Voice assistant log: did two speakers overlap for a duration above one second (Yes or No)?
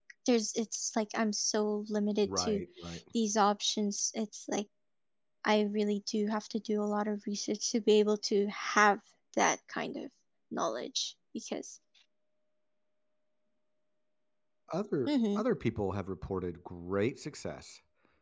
No